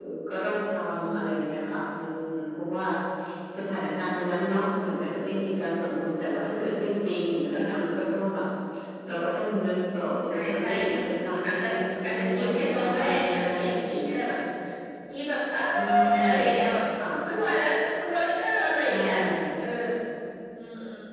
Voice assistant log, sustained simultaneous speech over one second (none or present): present